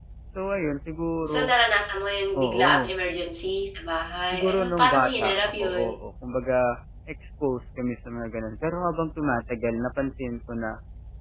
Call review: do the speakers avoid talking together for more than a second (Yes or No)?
No